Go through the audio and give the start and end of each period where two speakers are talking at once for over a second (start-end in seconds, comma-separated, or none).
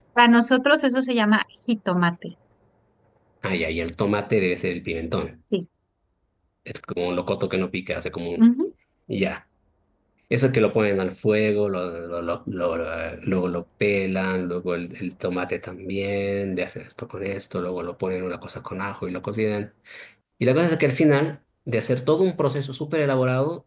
none